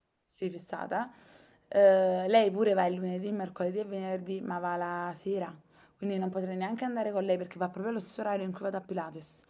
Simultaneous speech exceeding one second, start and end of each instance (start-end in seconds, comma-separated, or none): none